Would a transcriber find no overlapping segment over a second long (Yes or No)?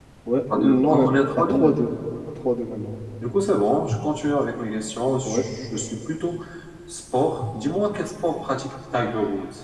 No